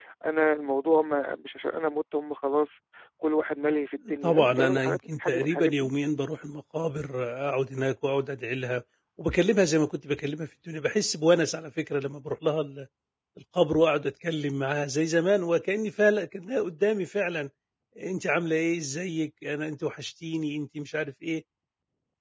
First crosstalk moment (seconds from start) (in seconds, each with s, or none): 4.2 s